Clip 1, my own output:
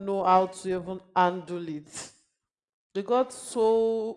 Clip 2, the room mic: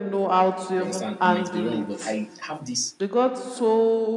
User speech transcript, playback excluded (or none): You understand? I might be wrong, but I have these